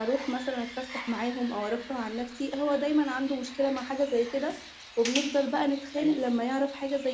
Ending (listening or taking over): listening